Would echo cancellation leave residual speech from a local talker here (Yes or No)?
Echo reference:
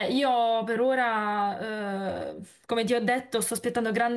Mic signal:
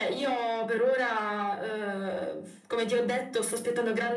No